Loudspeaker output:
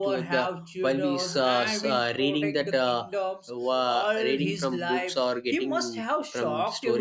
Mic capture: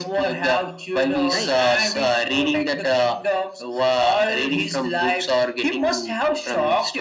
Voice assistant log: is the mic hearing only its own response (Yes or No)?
No